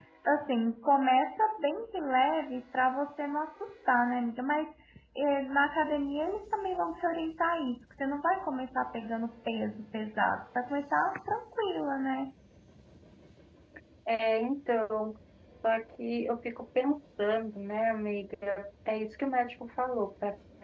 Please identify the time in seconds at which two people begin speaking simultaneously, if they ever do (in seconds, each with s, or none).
none